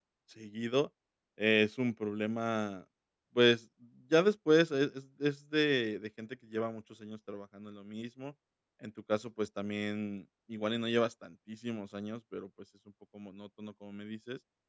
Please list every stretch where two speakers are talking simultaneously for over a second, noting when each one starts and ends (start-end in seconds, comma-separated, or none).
none